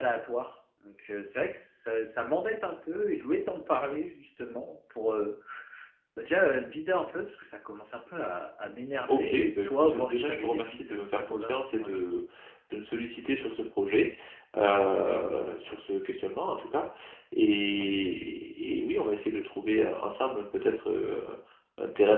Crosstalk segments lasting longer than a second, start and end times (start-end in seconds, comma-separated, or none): 9.1-12.0